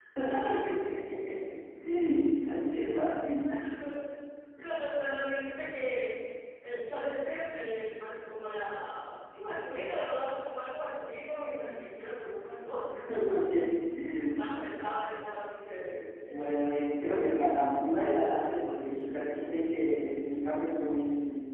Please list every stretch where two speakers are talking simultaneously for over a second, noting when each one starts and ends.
none

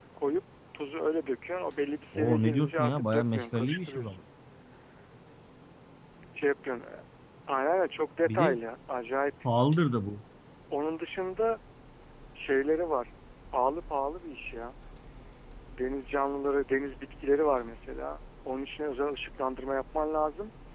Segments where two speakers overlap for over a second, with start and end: 2.1-4.2

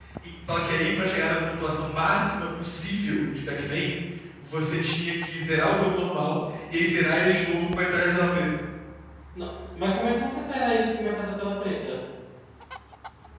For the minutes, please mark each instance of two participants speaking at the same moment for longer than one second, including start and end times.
none

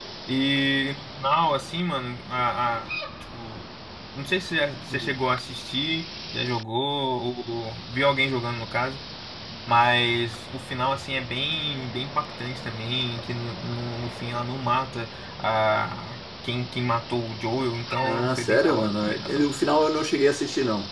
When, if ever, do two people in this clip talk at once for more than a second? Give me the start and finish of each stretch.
18.0-19.4

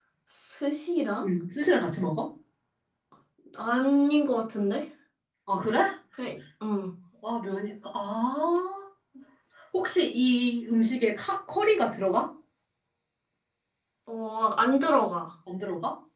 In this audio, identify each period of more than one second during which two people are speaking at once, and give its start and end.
none

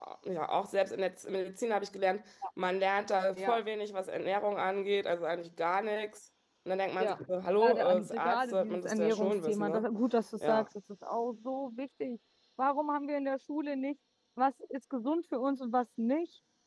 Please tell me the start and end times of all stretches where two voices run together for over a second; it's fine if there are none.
7.6-9.8

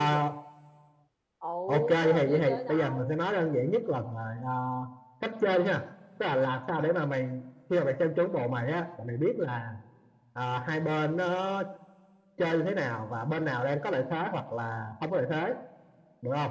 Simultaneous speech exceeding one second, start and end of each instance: 1.7-3.2

